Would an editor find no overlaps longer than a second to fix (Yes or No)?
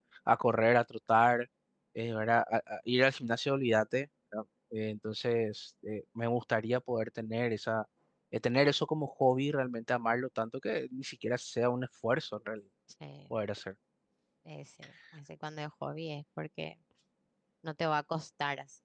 Yes